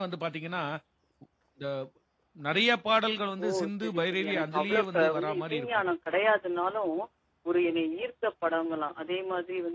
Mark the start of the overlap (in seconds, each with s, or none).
3.4 s